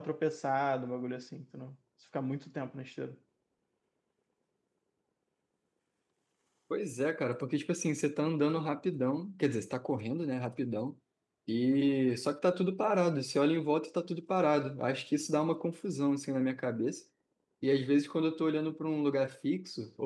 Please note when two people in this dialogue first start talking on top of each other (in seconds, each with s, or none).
none